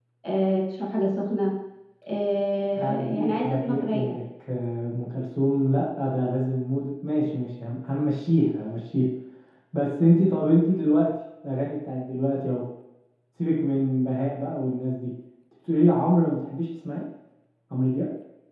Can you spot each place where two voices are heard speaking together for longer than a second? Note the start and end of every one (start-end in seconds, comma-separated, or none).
2.8-4.2